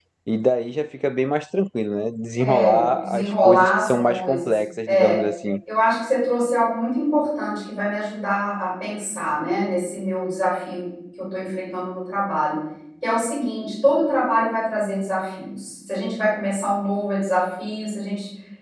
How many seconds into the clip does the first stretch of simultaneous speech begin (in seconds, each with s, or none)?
2.4 s